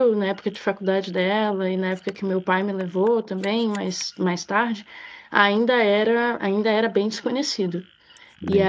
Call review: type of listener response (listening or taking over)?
taking over